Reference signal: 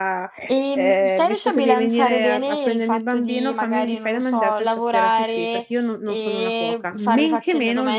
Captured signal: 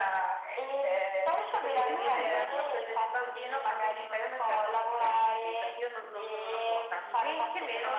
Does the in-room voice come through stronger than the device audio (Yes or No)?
No